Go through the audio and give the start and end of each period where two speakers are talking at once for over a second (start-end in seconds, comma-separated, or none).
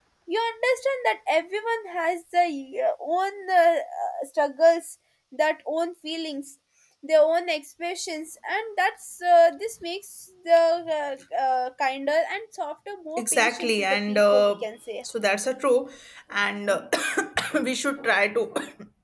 13.2-14.6